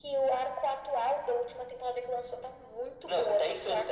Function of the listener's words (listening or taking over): taking over